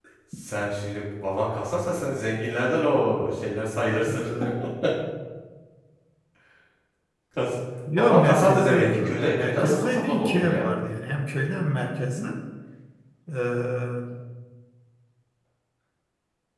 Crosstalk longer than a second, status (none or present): present